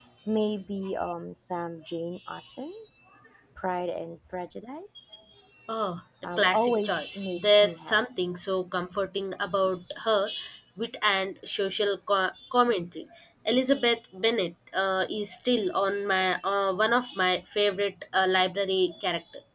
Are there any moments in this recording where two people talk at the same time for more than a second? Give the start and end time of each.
6.4-8.0

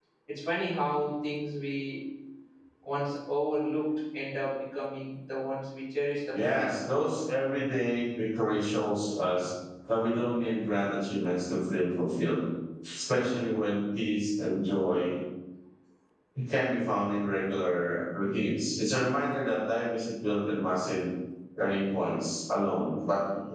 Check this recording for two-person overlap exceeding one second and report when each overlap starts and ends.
none

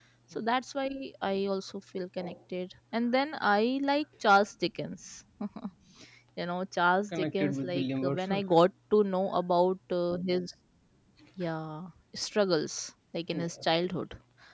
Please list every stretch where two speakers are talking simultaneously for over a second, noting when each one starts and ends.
7.2-8.5

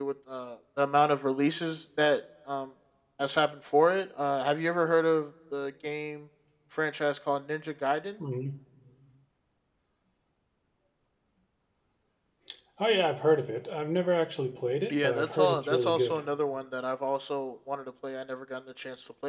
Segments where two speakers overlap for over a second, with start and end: 14.9-16.2

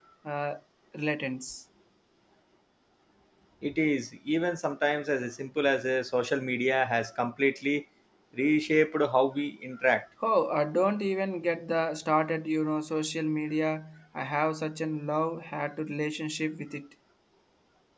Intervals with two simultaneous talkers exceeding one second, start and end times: none

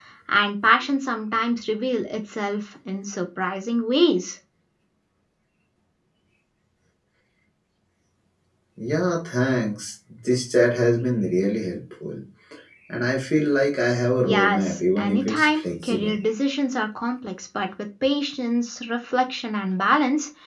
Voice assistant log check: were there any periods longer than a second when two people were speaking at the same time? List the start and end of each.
14.2-16.1

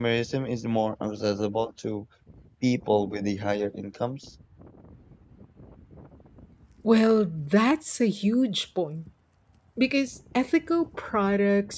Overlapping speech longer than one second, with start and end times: none

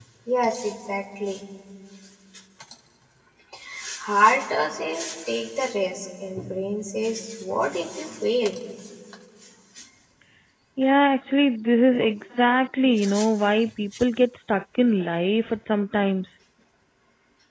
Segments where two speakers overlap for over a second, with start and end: none

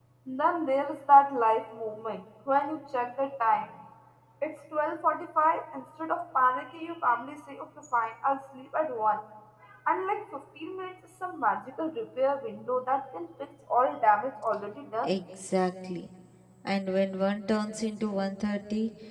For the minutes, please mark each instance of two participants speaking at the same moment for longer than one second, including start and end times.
none

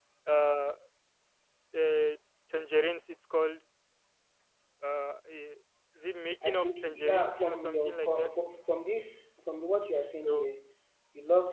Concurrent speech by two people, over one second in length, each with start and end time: 6.5-8.3

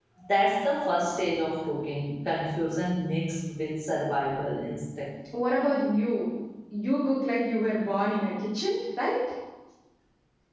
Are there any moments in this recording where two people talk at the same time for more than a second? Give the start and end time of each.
none

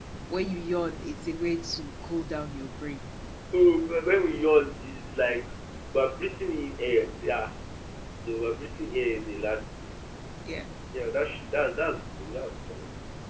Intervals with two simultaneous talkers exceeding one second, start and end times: none

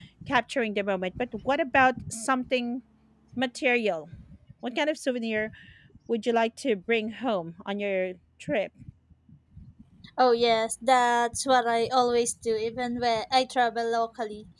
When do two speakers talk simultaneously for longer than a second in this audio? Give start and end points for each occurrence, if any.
none

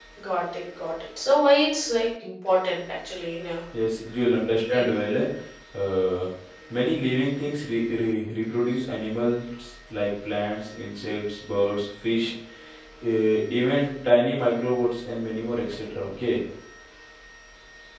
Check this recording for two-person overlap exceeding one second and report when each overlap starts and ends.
none

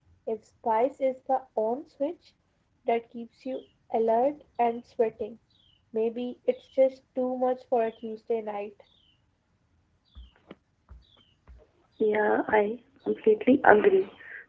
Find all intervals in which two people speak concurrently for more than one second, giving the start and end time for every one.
none

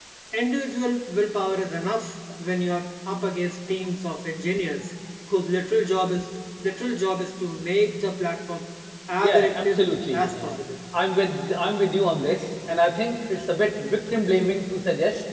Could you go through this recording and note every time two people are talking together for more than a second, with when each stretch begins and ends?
9.2-10.6

